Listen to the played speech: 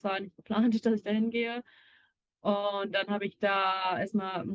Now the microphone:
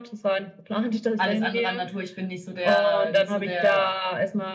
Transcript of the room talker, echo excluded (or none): alles andere an Natur. Ich bin nicht so der, nicht so der